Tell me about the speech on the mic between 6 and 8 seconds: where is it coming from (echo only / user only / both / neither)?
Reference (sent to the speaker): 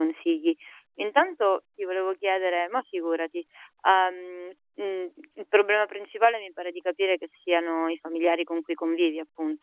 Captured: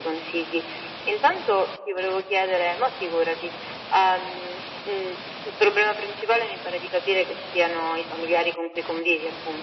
echo only